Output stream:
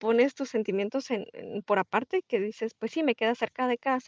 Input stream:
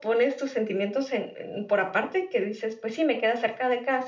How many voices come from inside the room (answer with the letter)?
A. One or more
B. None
B